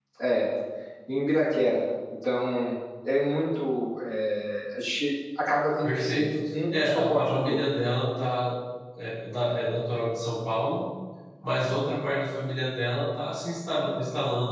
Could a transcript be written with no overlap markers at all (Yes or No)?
No